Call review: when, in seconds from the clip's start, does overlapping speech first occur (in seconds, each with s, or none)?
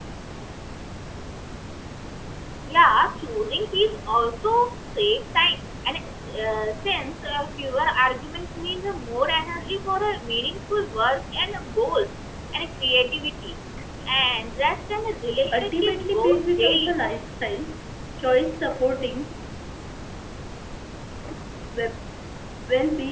15.5 s